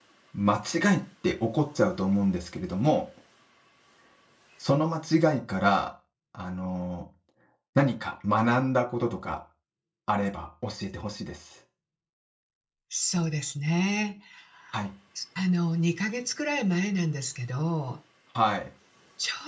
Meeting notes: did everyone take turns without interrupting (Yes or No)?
Yes